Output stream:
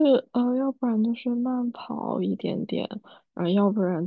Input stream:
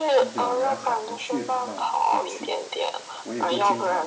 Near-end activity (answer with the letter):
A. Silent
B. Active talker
B